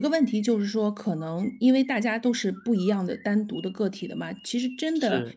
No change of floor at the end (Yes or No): Yes